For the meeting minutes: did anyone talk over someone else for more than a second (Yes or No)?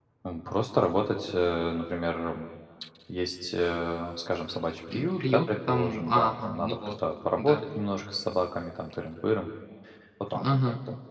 Yes